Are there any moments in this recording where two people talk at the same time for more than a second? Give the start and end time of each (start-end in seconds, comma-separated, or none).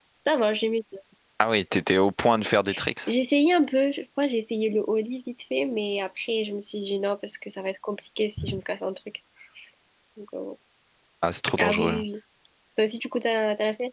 none